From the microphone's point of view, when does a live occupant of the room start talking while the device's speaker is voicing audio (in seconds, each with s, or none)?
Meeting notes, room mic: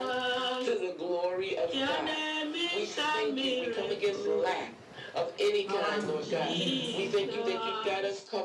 5.7 s